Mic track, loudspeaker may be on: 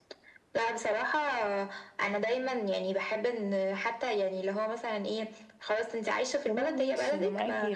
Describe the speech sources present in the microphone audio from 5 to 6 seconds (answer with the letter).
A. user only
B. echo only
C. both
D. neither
B